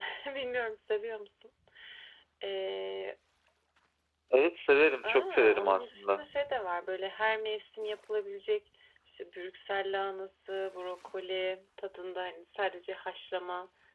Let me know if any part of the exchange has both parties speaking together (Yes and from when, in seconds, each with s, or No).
Yes, from 5.0 s